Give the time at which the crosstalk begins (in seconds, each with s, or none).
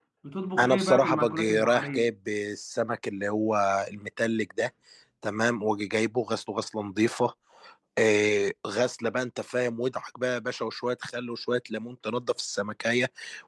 0.6 s